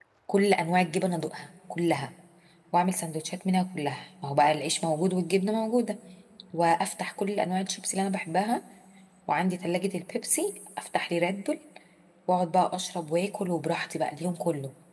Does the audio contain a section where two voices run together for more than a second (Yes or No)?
No